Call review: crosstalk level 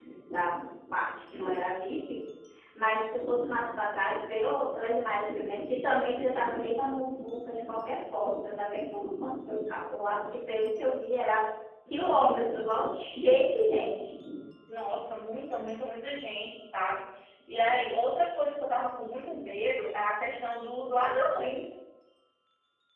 none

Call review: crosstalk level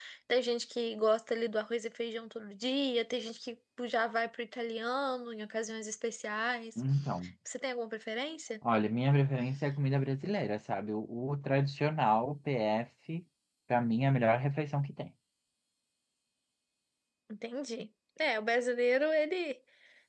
none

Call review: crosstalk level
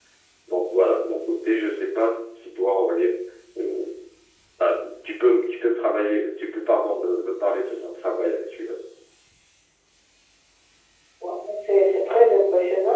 none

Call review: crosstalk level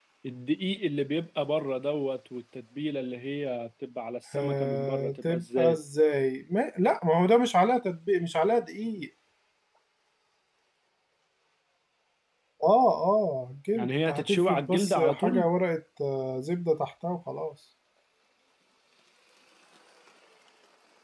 present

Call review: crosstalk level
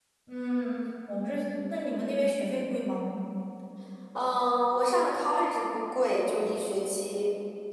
none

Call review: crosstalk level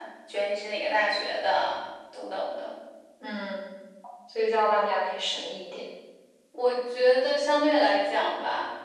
none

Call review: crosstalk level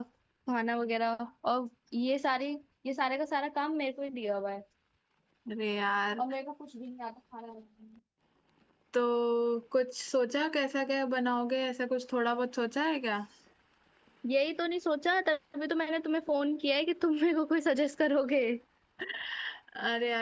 none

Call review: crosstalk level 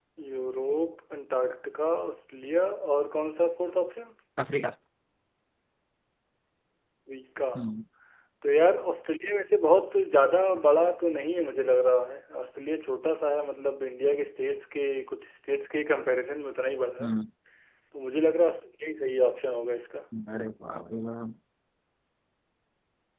none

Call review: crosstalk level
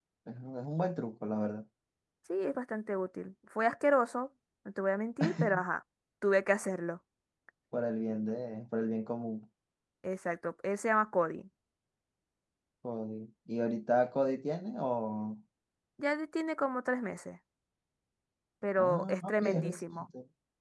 present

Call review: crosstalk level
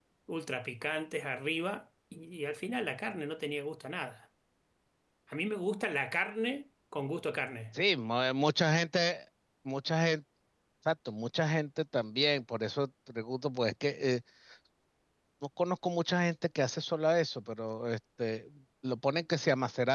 none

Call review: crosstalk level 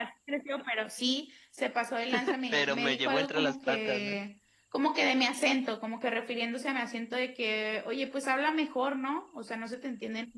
present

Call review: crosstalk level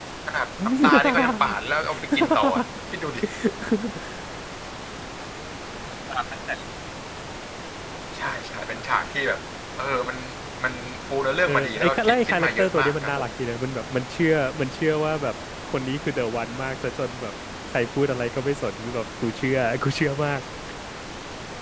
present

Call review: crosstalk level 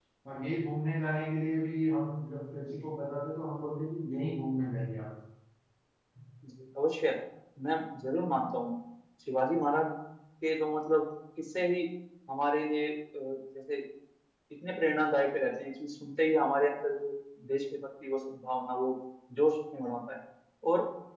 none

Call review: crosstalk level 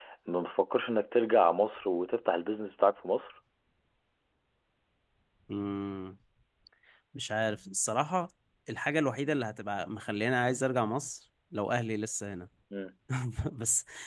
none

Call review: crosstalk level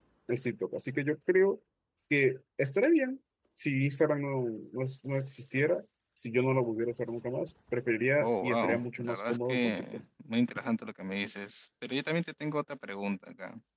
present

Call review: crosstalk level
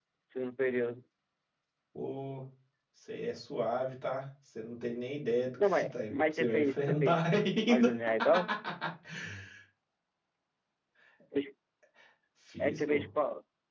present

